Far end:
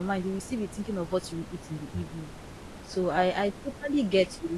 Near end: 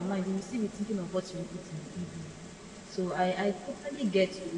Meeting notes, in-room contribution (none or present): none